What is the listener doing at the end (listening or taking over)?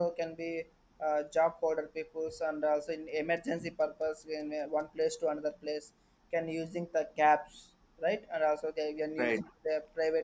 listening